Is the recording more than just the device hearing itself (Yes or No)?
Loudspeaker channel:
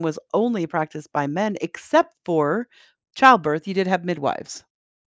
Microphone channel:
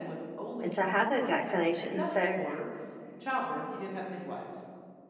Yes